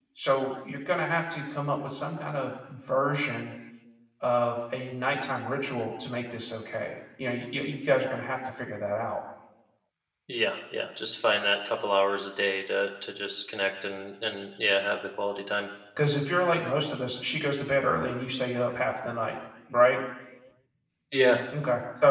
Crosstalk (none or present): none